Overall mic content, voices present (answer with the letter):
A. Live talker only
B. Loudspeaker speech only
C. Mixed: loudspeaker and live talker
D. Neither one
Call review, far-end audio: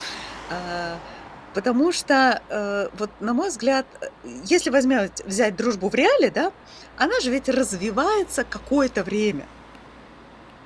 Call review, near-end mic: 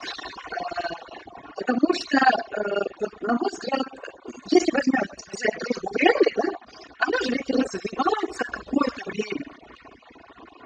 B